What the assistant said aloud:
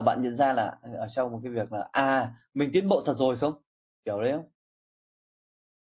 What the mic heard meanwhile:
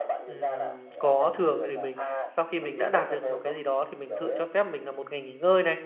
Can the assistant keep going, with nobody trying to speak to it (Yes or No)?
No